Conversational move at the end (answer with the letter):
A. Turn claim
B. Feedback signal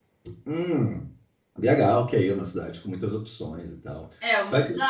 A